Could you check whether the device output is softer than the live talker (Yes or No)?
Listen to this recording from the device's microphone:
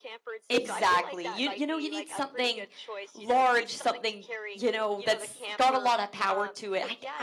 Yes